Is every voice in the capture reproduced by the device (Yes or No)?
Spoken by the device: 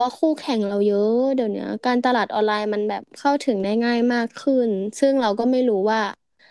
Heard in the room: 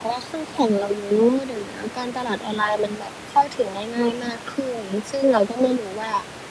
Yes